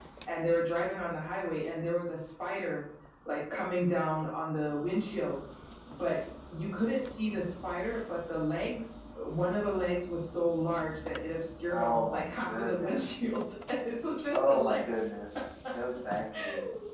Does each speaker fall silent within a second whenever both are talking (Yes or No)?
No